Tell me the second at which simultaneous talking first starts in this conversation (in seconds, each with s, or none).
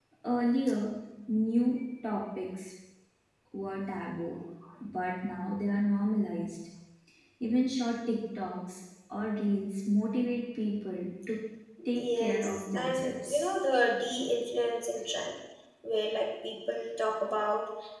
11.9 s